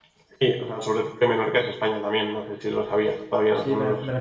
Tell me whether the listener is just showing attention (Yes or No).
No